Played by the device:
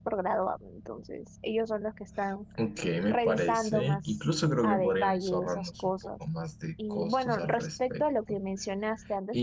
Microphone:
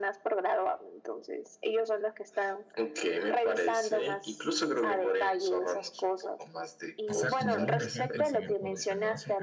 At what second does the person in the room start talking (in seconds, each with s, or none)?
7.0 s